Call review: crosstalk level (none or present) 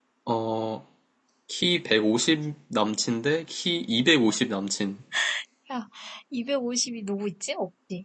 none